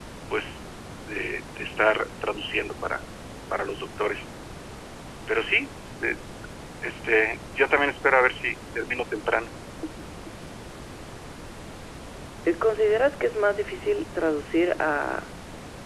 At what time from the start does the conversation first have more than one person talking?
none

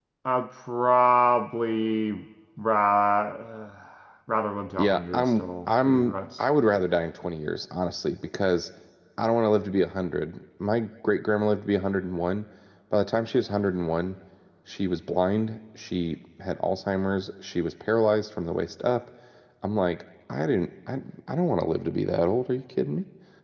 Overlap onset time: 4.8 s

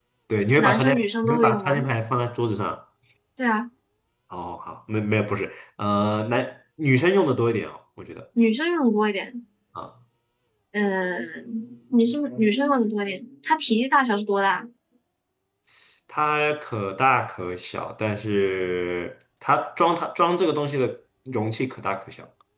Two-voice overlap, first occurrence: 0.6 s

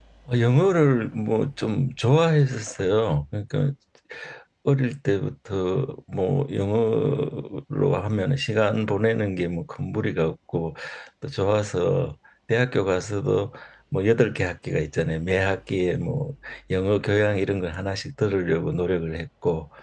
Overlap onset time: none

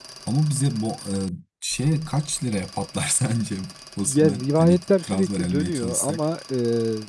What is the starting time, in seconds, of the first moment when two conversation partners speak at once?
4.0 s

